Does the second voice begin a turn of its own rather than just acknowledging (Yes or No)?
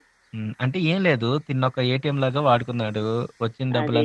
No